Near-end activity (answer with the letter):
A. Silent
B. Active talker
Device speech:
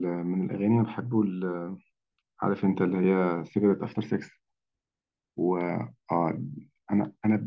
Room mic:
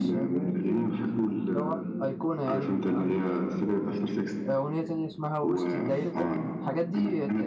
B